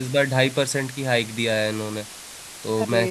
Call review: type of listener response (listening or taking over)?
listening